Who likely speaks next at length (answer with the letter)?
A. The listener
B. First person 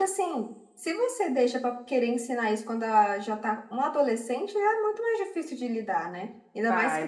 B